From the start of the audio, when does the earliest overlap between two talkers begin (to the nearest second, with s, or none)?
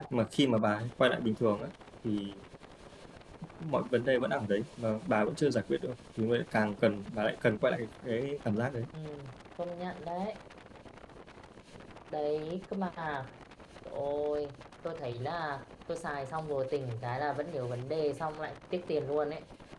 none